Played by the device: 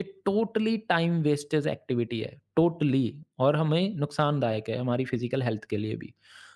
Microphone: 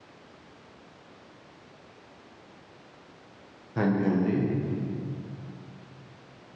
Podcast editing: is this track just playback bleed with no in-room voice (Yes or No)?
No